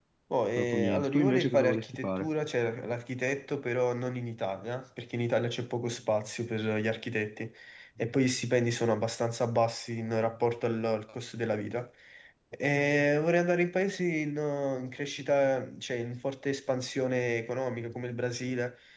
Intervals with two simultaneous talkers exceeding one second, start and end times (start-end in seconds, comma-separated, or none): 0.6-2.3